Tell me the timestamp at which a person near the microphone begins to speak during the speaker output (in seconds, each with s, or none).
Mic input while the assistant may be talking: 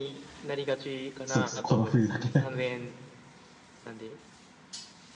1.2 s